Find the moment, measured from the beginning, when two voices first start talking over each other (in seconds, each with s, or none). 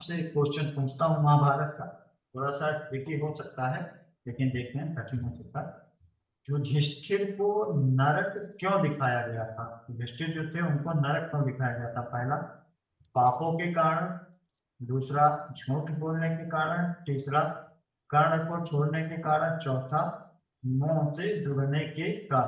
none